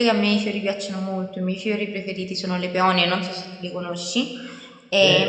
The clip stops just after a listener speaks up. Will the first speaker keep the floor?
Yes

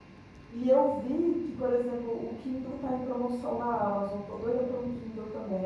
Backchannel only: No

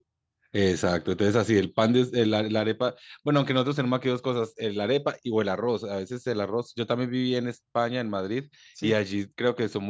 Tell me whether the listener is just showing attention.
Yes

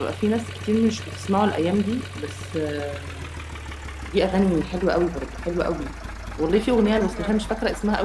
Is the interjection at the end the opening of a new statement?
No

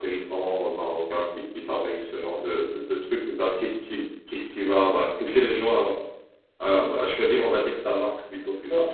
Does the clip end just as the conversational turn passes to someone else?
Yes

